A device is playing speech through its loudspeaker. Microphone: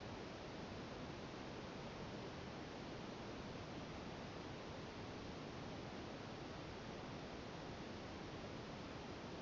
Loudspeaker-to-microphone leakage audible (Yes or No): No